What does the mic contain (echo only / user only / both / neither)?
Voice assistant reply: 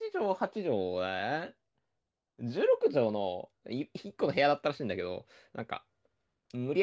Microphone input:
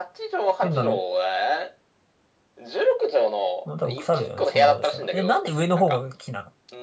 both